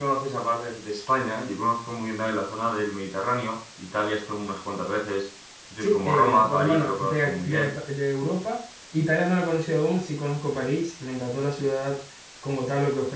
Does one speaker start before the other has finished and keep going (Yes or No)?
Yes